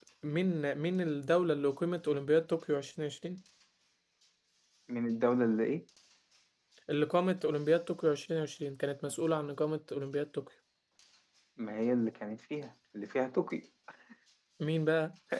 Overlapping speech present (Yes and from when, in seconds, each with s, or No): No